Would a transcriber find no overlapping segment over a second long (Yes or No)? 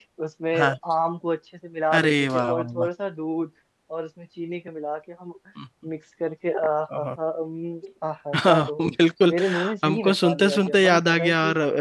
No